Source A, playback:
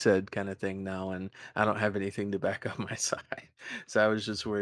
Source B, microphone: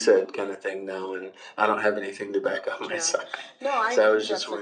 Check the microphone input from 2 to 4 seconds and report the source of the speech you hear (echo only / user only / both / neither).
both